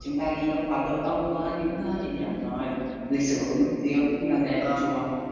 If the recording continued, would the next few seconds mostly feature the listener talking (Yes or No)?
Yes